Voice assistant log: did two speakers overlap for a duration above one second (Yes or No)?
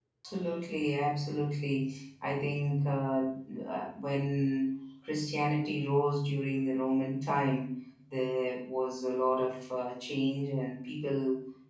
No